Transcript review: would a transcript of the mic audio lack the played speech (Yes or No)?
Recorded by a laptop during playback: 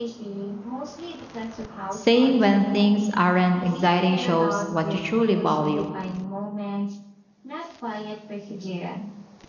No